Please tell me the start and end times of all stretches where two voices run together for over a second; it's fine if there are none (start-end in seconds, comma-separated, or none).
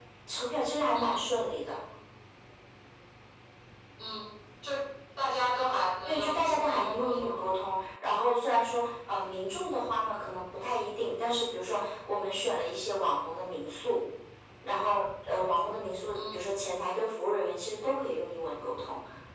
6.1-7.4